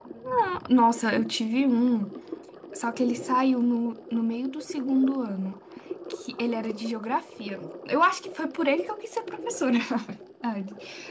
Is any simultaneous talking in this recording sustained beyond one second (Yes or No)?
No